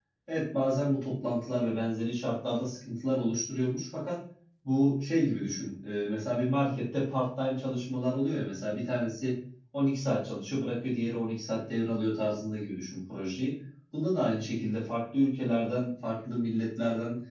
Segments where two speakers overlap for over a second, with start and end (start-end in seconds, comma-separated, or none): none